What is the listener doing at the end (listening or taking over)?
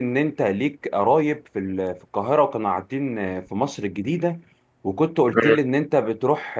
listening